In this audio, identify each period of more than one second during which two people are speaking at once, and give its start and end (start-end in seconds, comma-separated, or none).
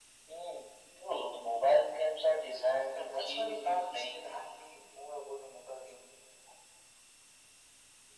2.9-4.2